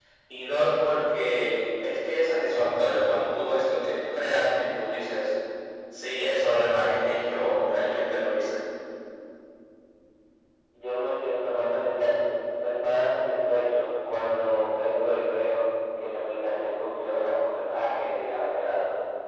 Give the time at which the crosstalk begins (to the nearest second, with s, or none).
none